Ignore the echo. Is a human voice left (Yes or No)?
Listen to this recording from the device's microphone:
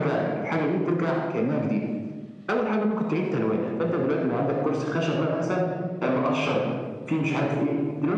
No